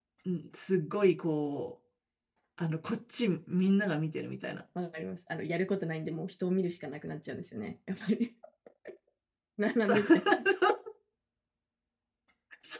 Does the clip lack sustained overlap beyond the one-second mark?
Yes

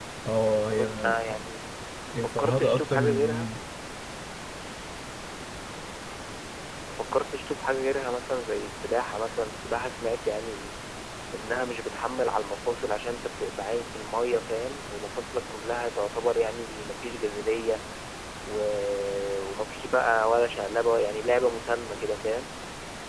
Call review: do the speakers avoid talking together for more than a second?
No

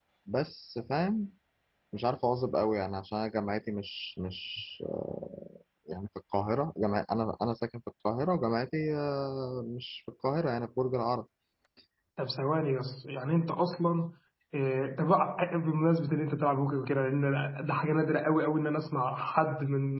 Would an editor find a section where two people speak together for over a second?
No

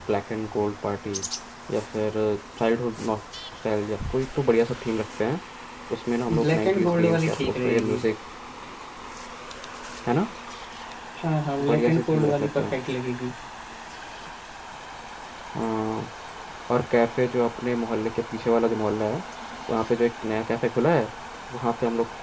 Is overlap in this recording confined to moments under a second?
No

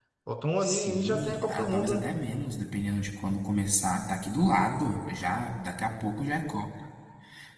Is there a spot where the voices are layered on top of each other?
Yes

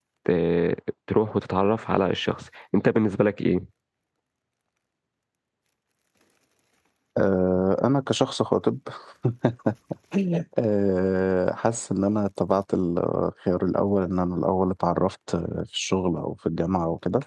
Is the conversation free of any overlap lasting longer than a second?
Yes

